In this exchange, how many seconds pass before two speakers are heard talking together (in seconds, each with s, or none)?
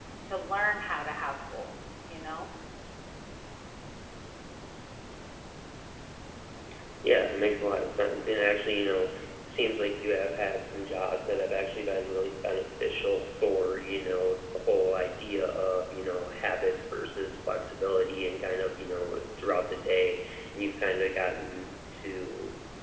none